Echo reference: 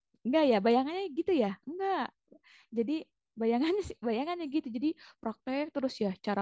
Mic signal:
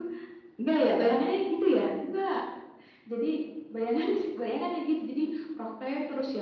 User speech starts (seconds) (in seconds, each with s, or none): none